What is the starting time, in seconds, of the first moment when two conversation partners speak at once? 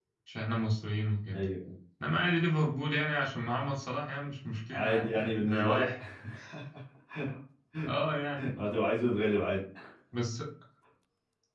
4.7 s

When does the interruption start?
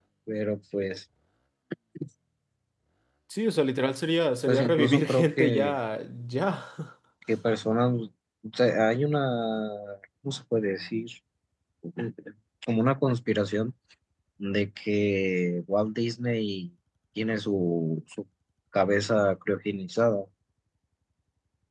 4.5 s

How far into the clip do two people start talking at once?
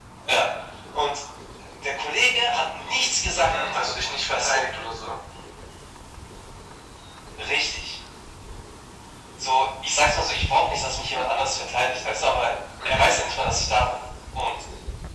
3.3 s

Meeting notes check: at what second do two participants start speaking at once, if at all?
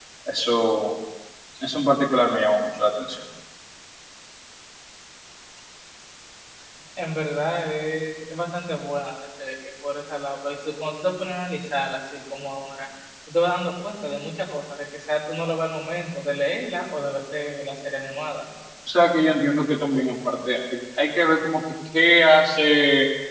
none

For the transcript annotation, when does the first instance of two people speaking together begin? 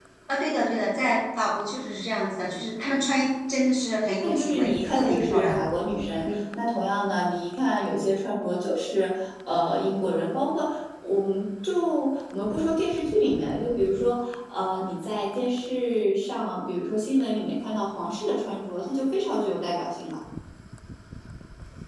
4.2 s

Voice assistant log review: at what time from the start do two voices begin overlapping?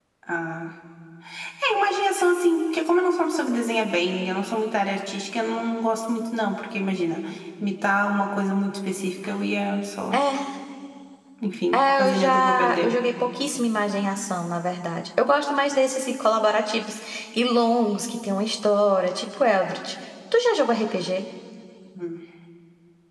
11.7 s

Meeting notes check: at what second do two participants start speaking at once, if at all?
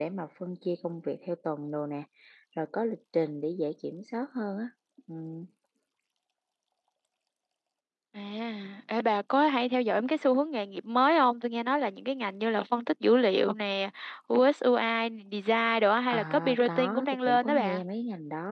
16.1 s

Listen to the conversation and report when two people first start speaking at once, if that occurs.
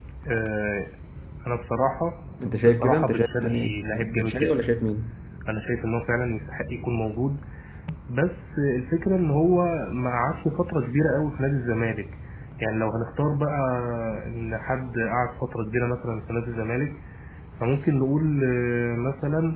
2.4 s

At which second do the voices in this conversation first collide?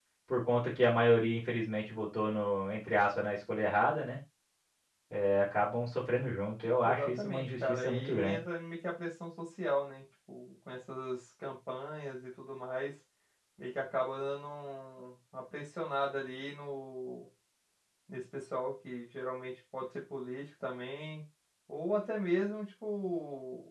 6.8 s

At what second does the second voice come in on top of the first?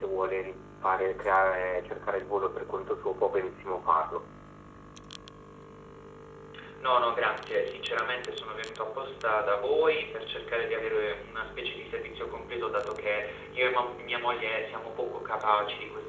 none

